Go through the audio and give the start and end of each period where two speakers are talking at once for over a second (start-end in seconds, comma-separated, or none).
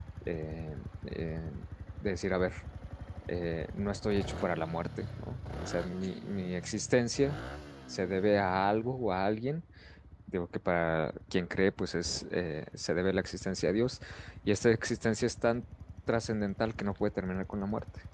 none